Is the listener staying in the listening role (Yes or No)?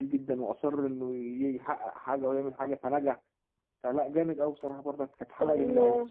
No